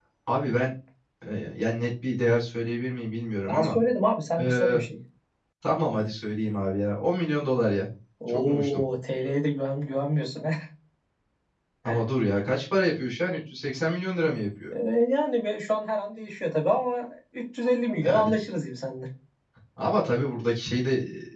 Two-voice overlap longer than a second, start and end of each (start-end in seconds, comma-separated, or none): none